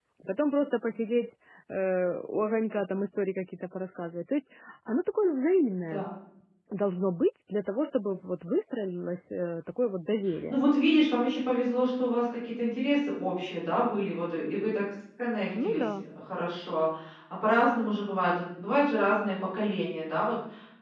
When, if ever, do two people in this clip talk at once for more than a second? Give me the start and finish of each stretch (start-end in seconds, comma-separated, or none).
none